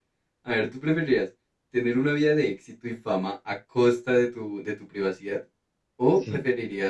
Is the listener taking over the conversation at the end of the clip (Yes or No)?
No